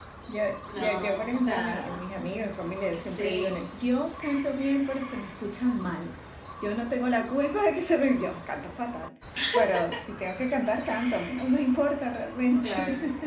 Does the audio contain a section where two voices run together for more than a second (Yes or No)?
Yes